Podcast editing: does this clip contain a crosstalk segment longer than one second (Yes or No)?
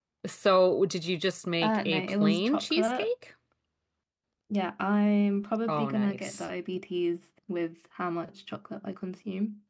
Yes